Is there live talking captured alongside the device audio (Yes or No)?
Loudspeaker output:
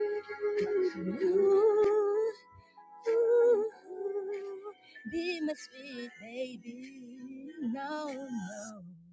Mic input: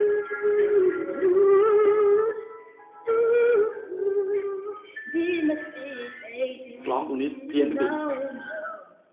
Yes